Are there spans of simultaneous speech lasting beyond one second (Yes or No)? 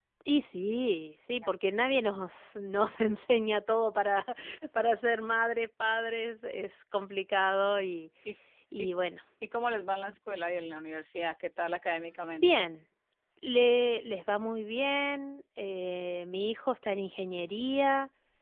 No